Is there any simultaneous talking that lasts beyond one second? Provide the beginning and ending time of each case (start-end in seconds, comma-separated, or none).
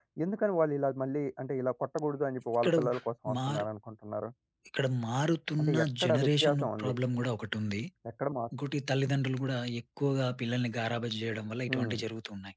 5.6-6.9